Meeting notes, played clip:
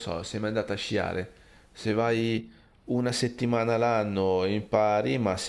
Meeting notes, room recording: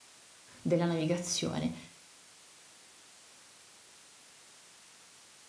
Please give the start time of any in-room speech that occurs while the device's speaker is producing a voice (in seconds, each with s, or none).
0.6 s